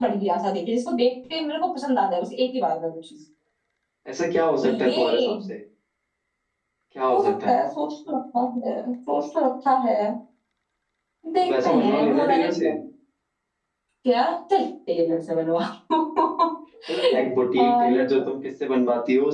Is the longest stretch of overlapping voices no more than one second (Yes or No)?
No